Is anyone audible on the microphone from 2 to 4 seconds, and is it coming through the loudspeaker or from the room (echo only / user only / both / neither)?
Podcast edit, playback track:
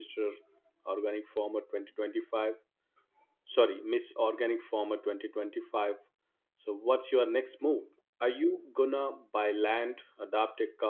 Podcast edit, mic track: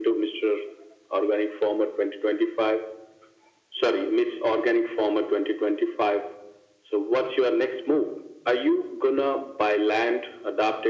echo only